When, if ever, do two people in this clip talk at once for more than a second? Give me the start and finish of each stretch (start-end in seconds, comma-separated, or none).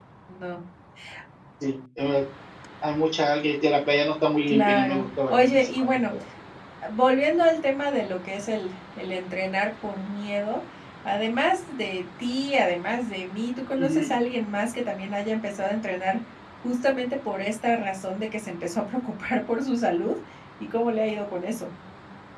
4.5-6.1